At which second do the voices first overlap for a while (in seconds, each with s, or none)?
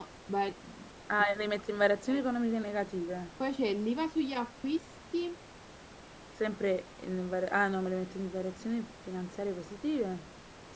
none